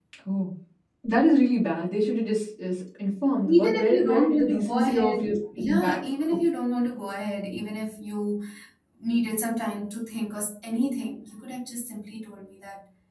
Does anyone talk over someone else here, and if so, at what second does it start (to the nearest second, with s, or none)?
3 s